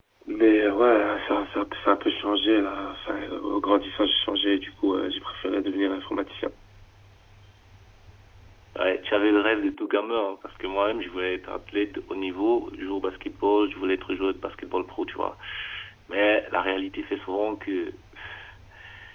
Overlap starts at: none

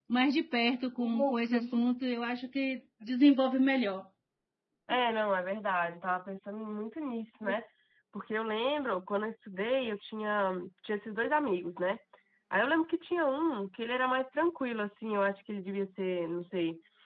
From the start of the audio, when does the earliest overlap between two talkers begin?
none

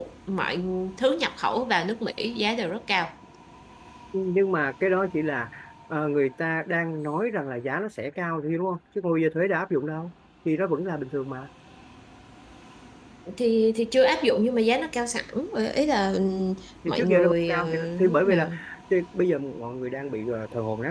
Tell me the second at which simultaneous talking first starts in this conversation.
16.9 s

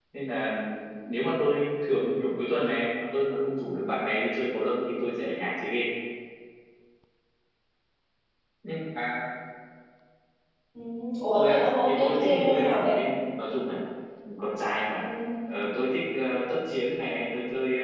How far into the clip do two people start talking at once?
11.3 s

